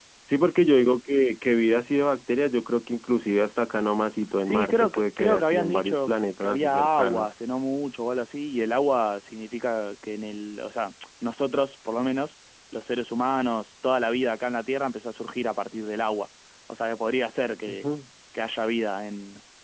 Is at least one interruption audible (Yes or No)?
Yes